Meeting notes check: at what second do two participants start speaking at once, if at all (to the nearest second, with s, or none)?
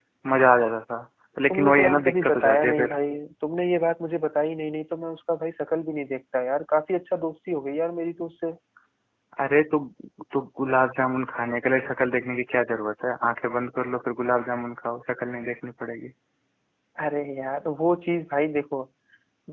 2 s